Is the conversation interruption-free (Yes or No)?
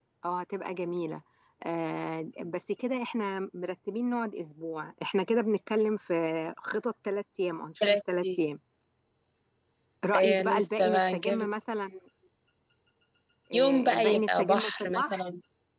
No